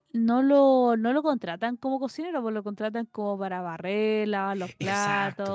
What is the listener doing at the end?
listening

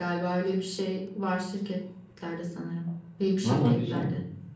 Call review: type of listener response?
taking over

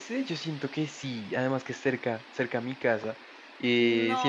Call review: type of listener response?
listening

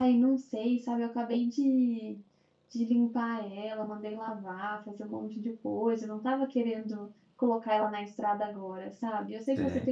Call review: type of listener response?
listening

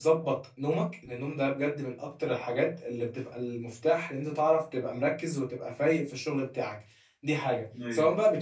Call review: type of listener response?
listening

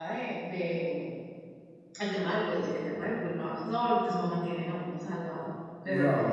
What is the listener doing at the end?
taking over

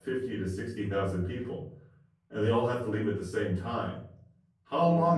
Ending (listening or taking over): listening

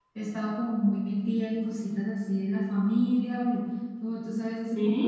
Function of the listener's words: listening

